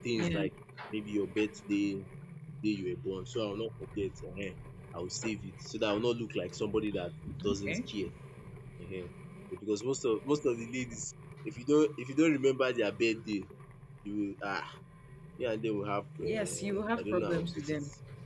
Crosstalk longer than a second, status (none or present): present